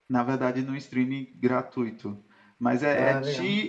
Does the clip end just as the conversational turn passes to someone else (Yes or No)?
No